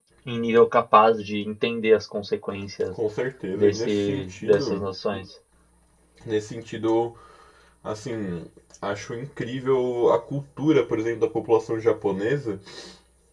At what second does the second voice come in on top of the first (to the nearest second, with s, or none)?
4 s